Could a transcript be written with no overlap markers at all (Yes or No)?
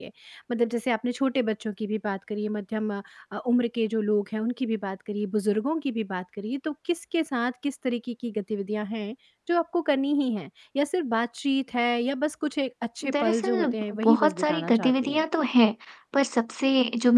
No